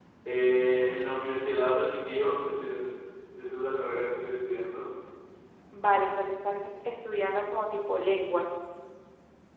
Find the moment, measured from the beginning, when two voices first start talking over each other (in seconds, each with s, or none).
none